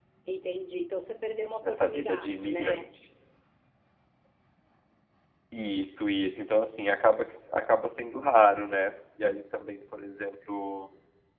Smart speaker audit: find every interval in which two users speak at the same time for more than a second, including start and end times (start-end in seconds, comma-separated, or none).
1.6-2.9